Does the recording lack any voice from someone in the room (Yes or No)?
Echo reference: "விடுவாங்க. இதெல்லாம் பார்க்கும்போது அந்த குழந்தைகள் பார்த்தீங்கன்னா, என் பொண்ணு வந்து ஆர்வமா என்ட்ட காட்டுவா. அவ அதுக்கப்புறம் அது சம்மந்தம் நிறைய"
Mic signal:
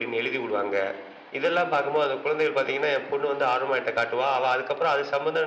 Yes